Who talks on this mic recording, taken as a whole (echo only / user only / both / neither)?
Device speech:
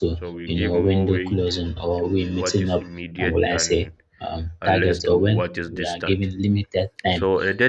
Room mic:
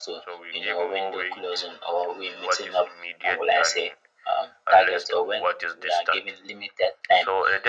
echo only